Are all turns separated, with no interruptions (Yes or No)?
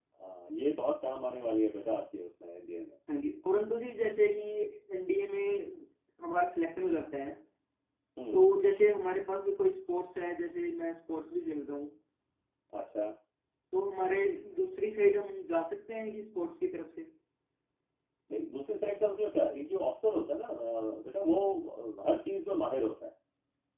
Yes